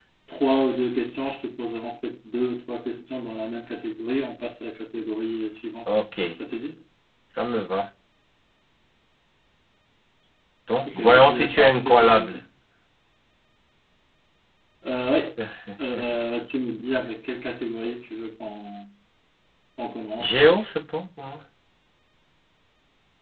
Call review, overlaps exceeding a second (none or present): present